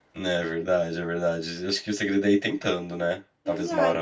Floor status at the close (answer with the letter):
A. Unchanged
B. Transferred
B